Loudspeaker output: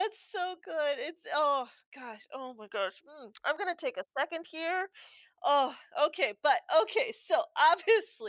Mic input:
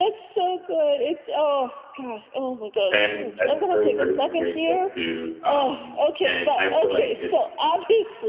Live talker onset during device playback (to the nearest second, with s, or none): 3 s